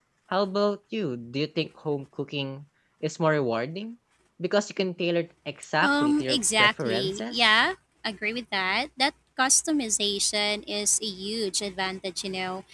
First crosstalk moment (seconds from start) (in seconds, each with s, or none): 5.8 s